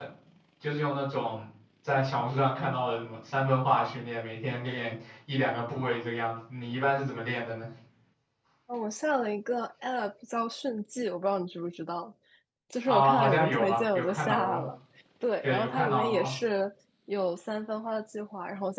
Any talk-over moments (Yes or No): Yes